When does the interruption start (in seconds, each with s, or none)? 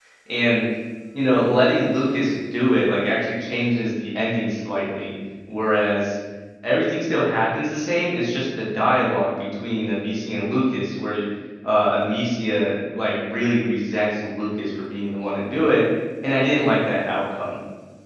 none